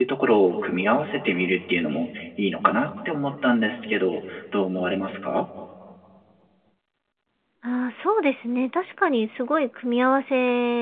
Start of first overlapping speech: none

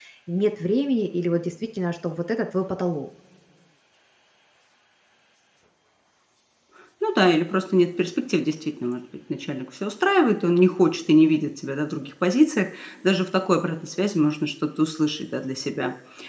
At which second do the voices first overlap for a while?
none

